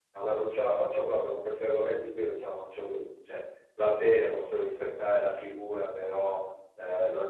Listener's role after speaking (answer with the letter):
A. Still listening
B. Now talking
A